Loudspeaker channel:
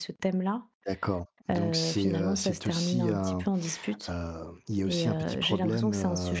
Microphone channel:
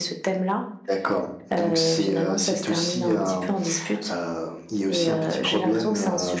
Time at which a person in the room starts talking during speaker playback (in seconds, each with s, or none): none